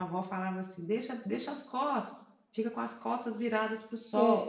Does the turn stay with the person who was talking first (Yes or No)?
No